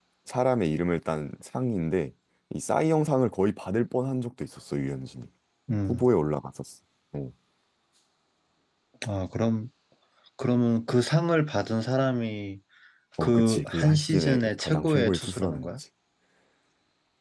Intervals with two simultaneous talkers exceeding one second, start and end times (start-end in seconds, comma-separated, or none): 13.2-15.8